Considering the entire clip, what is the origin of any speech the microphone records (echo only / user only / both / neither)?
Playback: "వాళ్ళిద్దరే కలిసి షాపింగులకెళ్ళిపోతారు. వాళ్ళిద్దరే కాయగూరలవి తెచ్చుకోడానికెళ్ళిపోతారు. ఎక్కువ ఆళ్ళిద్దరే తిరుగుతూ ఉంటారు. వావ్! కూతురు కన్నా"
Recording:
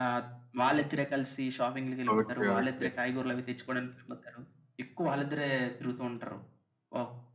both